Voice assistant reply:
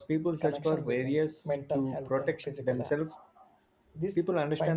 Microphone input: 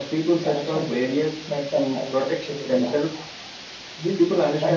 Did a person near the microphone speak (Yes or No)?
No